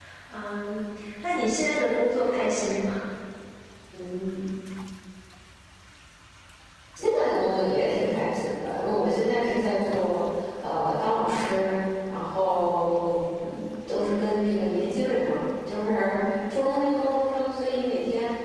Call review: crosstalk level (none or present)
none